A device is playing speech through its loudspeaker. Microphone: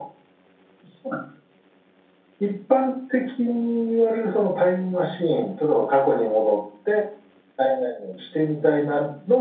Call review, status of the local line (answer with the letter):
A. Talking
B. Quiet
B